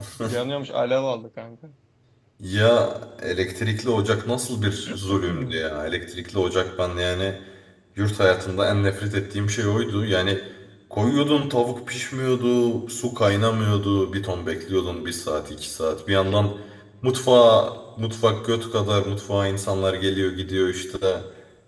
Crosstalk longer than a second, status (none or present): none